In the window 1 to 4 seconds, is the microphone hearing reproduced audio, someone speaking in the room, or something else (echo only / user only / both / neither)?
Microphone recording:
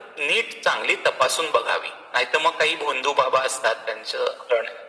echo only